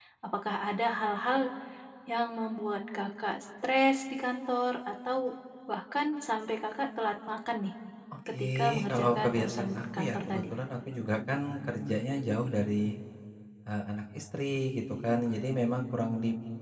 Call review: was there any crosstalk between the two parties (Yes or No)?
Yes